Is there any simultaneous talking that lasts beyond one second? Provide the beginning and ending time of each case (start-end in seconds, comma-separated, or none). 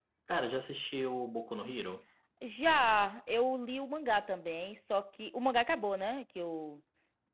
none